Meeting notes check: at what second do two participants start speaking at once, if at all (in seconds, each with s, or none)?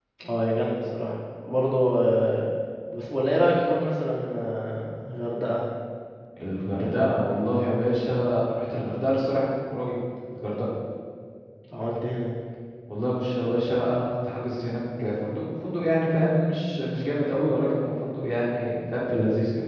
none